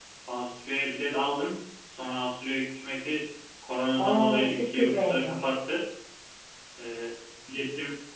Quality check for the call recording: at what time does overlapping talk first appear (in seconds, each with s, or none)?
4.0 s